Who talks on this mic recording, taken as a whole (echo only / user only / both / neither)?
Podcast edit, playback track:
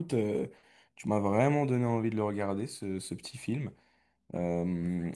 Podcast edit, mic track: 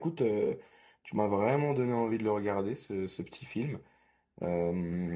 echo only